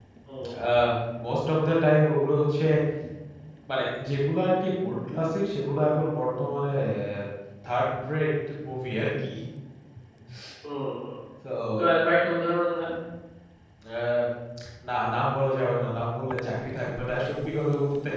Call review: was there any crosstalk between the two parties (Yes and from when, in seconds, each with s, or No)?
No